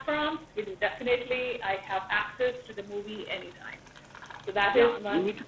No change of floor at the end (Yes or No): No